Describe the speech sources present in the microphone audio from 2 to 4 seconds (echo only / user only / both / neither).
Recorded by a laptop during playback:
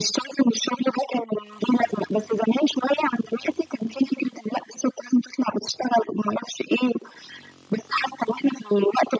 echo only